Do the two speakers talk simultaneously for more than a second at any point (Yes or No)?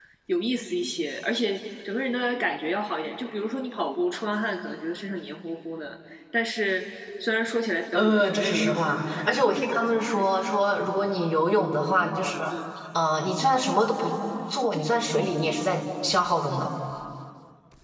Yes